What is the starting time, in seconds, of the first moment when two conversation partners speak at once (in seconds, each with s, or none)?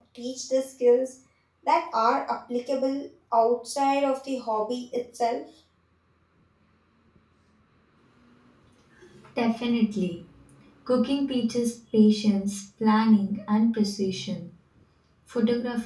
none